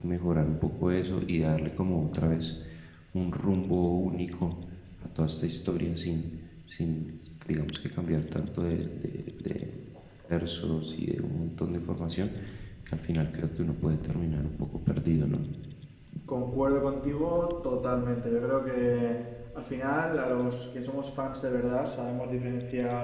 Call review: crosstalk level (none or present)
none